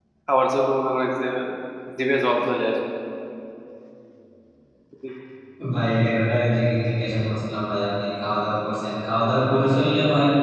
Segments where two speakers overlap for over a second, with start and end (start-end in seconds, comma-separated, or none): none